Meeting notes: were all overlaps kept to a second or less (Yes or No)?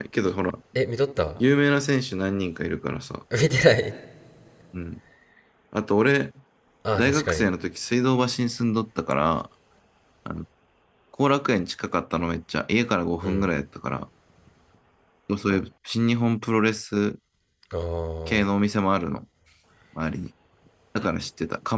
Yes